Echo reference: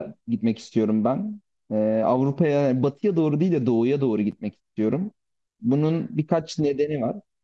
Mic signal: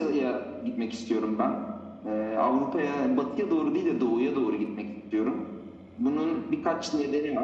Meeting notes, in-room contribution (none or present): none